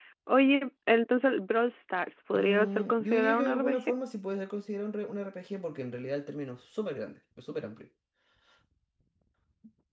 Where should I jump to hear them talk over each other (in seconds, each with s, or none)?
2.3 s